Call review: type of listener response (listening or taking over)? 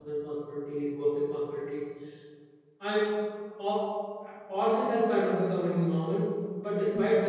listening